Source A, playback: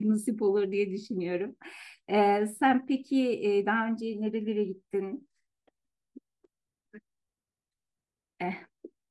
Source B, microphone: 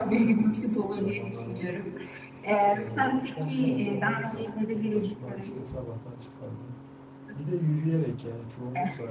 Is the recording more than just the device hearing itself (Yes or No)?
Yes